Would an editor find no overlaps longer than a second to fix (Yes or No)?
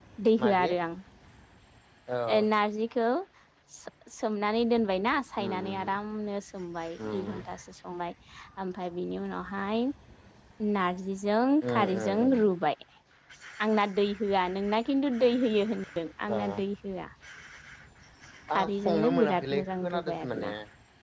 No